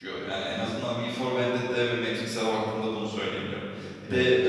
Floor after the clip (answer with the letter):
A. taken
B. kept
B